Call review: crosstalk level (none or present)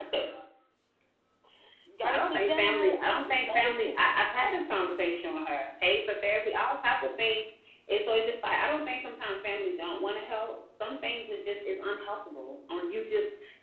present